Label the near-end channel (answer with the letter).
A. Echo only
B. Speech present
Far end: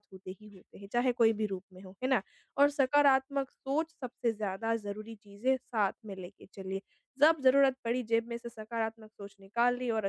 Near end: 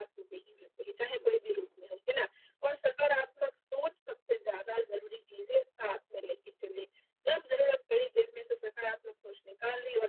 B